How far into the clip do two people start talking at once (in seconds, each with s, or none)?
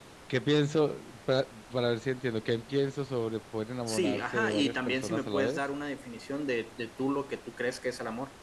3.9 s